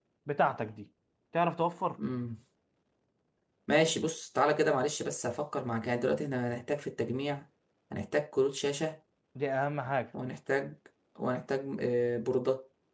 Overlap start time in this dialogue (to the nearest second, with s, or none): none